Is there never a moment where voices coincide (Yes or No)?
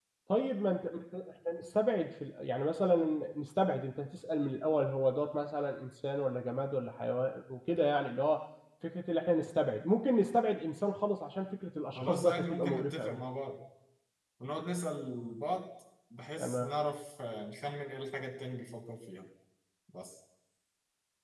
No